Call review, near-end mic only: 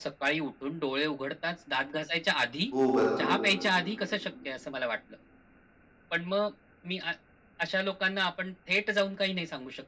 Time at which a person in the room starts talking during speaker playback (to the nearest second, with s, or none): 3 s